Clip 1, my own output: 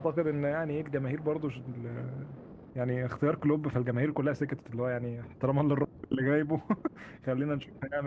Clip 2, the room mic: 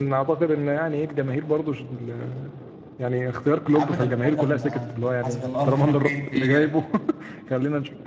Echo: present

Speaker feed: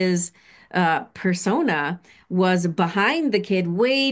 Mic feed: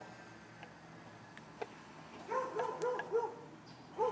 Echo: none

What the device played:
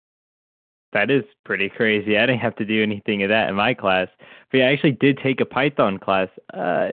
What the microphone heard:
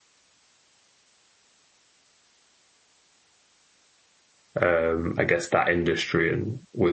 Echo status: none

